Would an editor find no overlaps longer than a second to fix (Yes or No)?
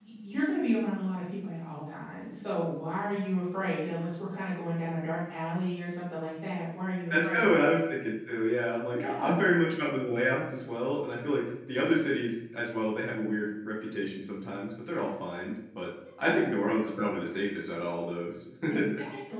Yes